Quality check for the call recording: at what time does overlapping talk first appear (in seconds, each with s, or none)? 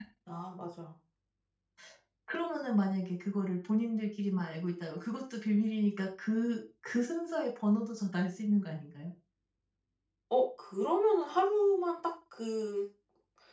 none